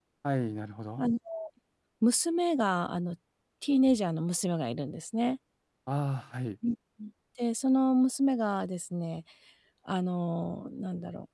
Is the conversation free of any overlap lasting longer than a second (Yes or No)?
Yes